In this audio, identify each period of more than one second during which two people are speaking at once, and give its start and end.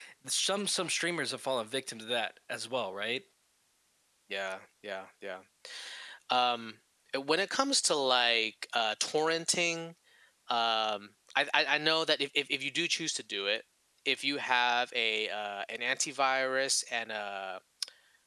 none

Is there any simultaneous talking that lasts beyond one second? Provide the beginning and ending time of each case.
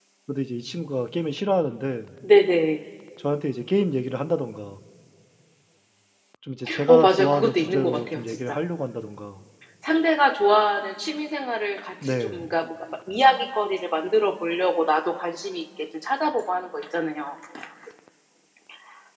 6.9-8.6

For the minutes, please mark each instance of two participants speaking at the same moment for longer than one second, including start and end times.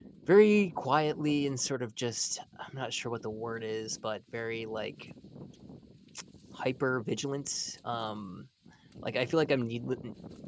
none

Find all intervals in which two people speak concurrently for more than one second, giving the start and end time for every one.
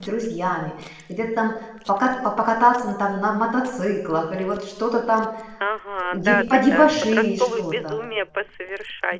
6.1-8.0

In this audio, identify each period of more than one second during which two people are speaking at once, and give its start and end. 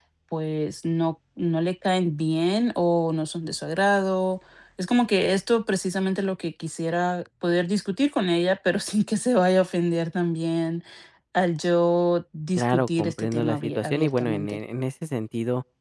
12.6-14.6

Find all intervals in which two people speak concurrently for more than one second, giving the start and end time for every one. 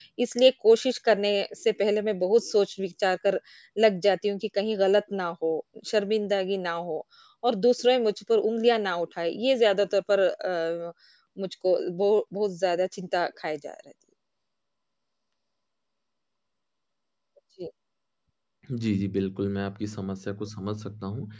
none

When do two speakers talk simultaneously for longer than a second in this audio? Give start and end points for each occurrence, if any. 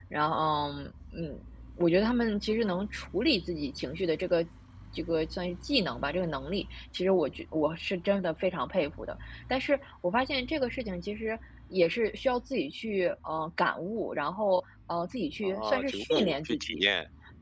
15.4-16.8

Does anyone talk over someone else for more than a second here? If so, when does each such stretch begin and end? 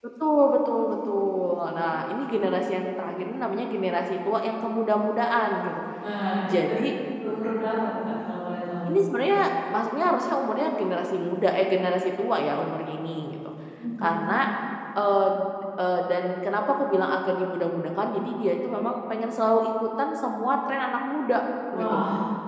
none

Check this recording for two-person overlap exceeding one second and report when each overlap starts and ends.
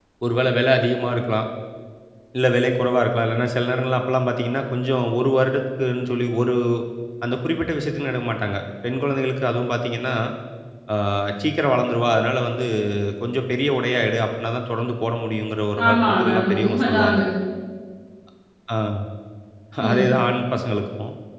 15.9-17.2

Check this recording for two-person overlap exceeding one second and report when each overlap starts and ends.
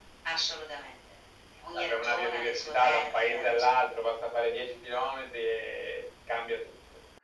1.7-3.6

